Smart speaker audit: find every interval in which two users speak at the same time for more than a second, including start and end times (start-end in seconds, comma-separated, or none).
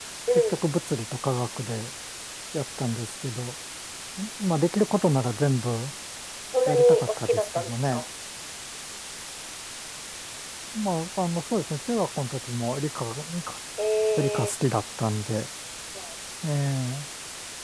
6.7-8.0